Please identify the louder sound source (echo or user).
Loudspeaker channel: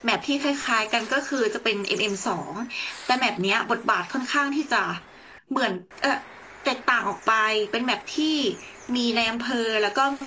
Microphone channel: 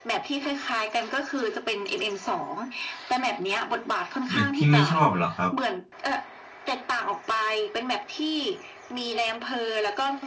user